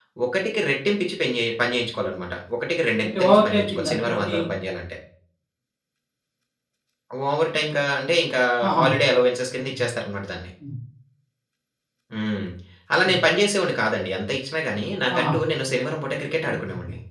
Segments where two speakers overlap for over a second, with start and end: 3.0-4.4

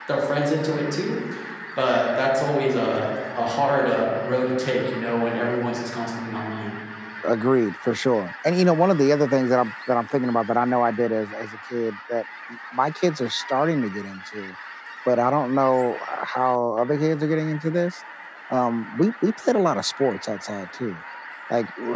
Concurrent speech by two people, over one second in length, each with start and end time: none

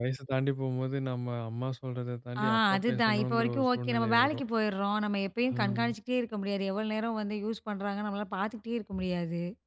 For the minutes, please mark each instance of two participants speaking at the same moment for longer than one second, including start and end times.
2.4-4.4

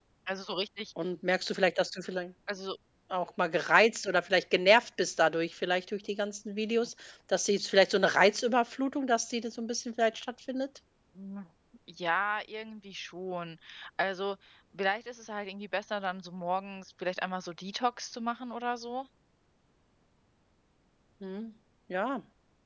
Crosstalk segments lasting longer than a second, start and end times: none

